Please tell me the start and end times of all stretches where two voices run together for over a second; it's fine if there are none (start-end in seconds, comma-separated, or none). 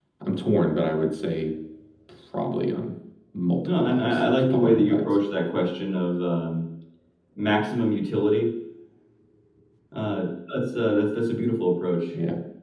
3.8-5.0